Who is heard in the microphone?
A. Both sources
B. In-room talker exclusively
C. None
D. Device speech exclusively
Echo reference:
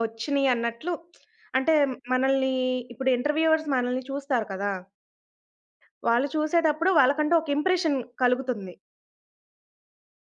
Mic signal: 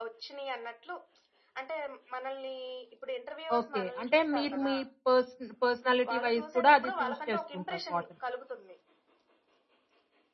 A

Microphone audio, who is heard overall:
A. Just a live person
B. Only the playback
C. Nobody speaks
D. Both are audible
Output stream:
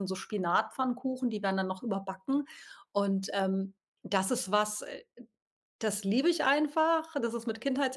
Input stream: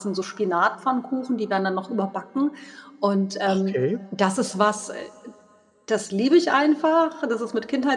D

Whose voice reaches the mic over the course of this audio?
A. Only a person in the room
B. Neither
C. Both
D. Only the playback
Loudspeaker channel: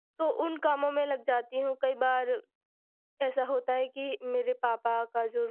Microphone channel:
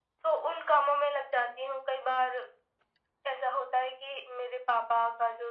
D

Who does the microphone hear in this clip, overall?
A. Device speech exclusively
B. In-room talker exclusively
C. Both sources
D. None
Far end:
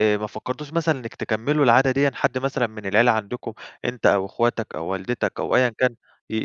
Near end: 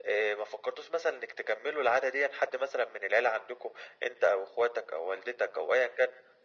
A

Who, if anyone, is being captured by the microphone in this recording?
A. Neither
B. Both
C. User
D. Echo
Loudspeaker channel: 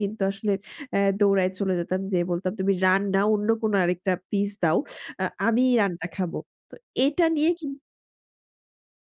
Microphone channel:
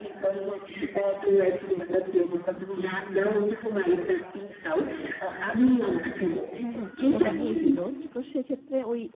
B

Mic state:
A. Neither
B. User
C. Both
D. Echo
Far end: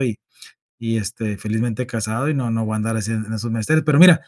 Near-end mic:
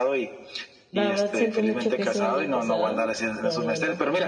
C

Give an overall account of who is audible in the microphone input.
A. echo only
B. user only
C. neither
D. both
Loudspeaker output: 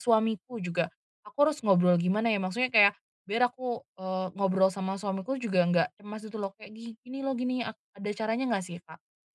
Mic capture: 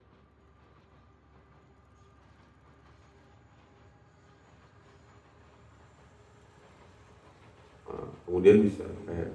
B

